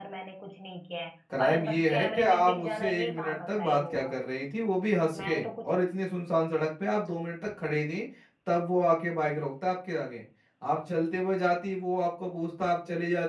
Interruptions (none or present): present